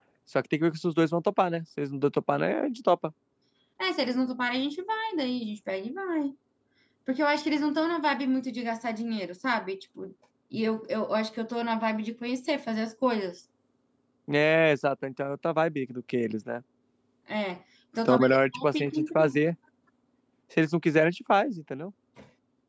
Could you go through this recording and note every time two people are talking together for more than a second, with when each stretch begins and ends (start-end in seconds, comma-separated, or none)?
18.1-19.4